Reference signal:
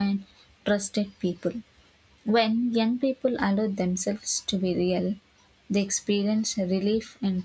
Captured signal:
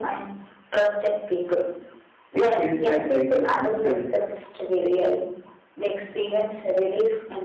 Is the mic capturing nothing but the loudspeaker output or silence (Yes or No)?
No